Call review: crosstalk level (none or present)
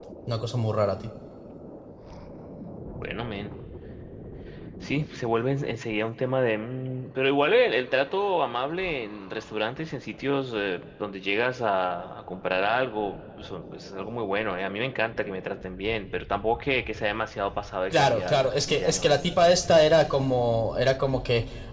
present